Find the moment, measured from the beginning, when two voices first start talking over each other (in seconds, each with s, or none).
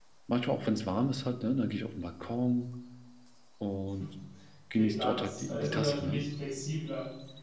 4.8 s